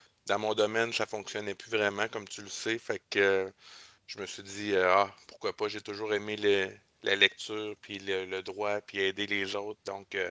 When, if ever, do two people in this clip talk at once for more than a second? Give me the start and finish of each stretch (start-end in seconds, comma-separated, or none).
none